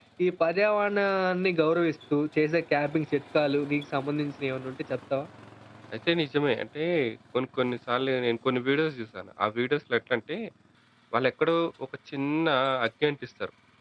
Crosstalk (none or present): none